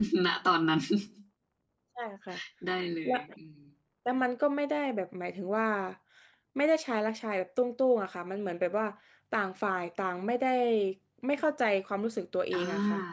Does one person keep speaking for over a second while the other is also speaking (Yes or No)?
No